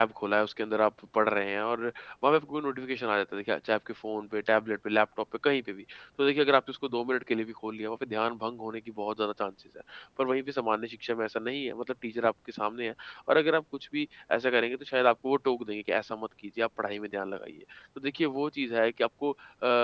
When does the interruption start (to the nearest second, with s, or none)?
none